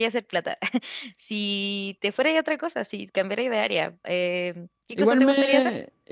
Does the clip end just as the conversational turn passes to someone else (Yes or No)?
Yes